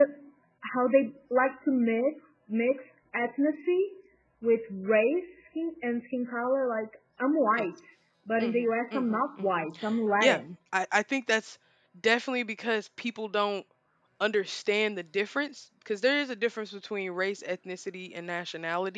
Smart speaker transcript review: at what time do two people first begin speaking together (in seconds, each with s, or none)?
8.4 s